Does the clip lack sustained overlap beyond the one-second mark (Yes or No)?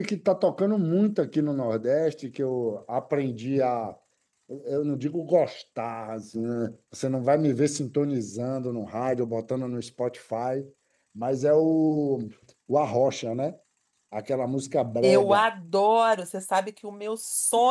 Yes